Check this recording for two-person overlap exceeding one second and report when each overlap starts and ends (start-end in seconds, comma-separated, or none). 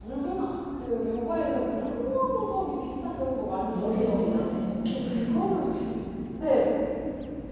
3.7-5.3